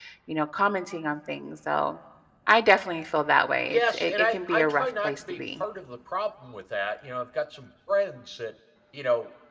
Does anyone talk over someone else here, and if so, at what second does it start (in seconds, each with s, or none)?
3.6 s